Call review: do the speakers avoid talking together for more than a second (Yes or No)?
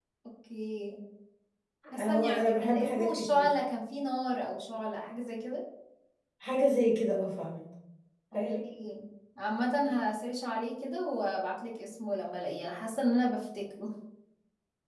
No